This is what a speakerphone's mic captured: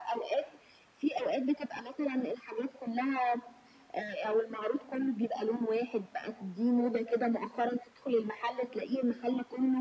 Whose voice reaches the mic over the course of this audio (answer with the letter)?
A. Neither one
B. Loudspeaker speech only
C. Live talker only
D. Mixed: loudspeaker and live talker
B